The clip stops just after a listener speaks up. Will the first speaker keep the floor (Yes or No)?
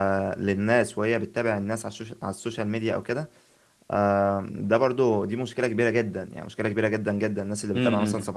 Yes